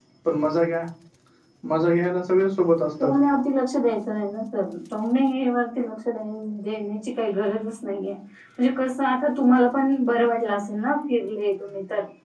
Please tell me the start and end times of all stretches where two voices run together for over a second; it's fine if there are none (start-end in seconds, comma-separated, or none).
none